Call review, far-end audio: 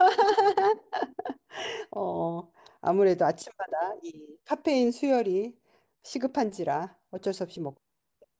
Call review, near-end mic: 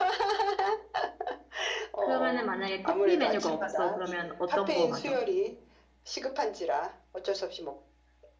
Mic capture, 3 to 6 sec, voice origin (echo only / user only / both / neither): both